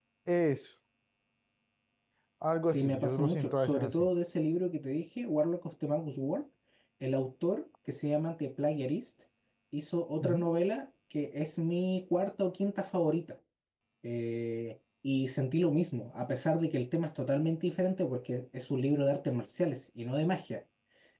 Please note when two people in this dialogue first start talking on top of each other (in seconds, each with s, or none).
2.7 s